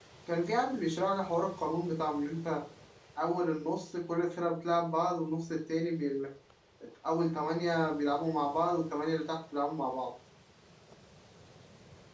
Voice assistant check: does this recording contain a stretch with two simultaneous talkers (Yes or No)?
No